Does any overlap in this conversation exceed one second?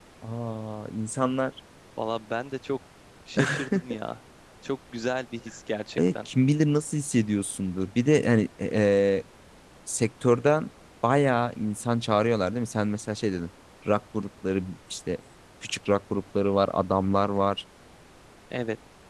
No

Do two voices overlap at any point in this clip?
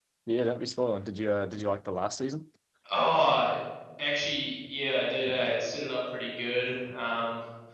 No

